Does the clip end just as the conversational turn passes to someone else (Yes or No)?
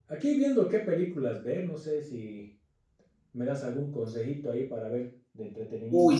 Yes